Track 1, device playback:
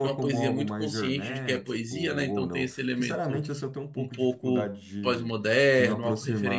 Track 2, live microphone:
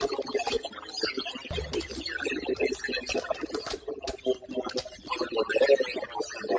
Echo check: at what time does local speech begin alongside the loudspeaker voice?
none

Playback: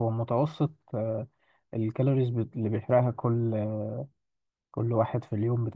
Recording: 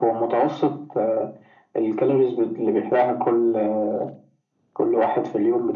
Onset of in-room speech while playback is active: none

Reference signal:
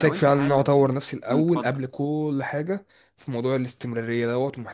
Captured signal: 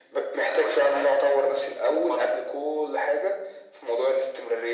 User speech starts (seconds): none

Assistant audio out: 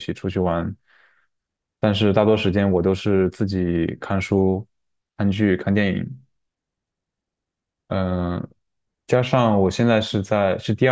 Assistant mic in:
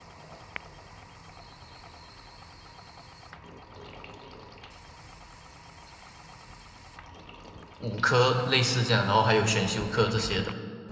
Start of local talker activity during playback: 7.8 s

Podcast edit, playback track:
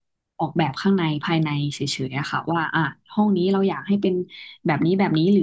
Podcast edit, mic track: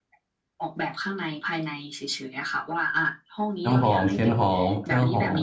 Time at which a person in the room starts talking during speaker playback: 3.6 s

